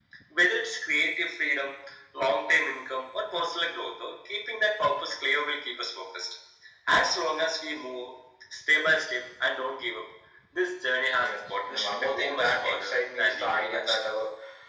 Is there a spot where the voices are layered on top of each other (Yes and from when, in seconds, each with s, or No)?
Yes, from 11.2 s